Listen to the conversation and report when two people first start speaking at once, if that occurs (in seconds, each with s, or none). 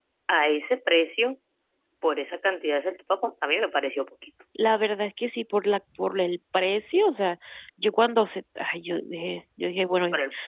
none